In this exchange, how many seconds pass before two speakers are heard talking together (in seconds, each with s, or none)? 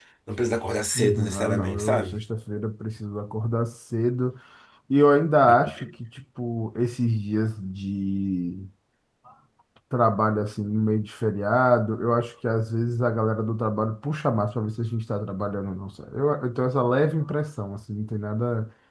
0.9 s